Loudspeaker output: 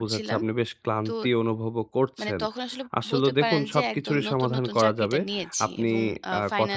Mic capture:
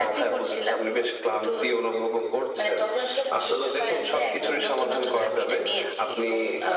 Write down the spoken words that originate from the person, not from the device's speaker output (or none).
none